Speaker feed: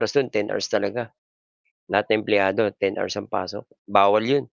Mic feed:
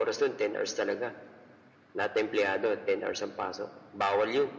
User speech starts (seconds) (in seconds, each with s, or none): none